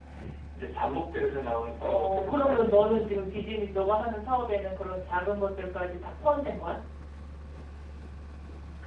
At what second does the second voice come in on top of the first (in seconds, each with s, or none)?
1.8 s